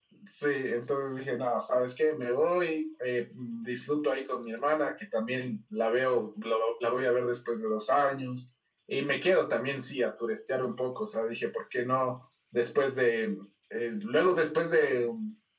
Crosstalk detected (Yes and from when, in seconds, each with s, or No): No